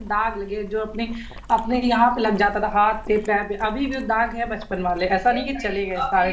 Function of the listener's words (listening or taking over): taking over